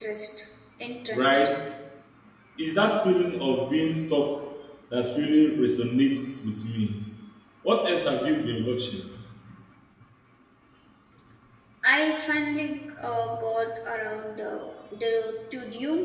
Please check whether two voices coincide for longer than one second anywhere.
No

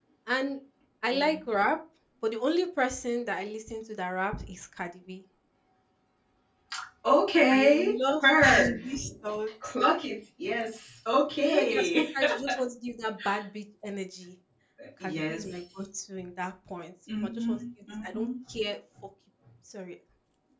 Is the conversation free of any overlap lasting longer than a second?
No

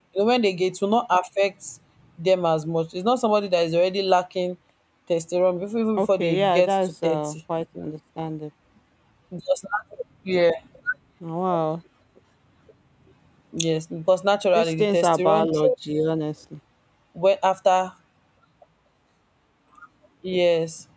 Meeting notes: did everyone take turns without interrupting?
No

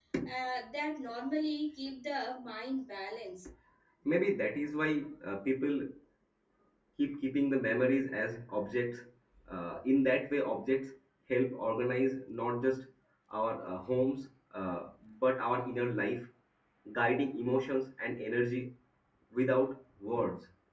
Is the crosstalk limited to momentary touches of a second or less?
Yes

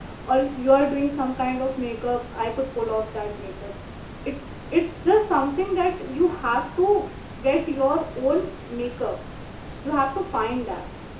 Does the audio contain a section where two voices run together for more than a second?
No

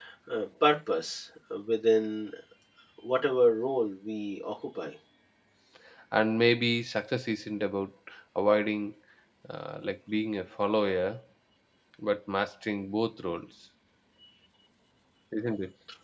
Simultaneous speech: No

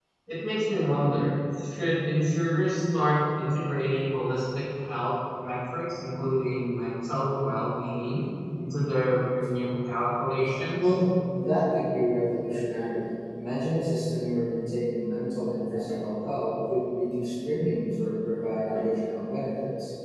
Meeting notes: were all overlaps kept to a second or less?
Yes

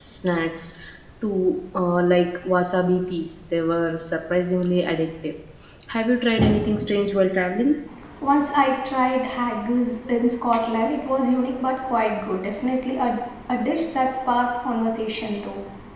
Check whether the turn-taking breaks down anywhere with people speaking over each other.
No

